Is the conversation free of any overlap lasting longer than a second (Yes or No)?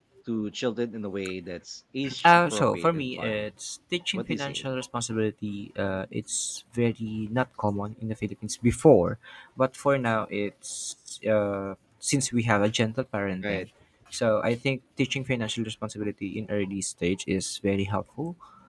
No